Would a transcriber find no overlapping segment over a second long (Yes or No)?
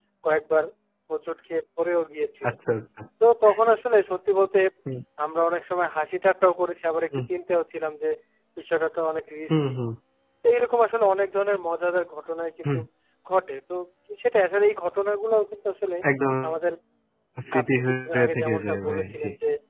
No